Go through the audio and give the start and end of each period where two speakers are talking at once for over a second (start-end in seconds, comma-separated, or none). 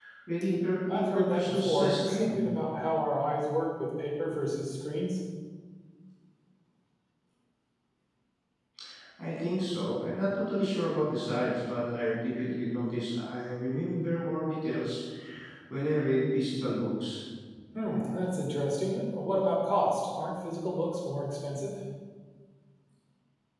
0.9-2.4